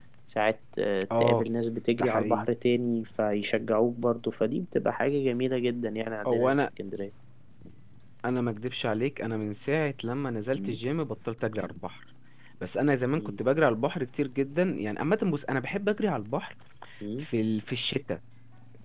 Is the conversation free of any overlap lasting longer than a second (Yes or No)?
Yes